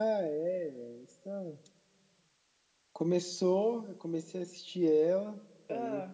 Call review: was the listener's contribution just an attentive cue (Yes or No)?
Yes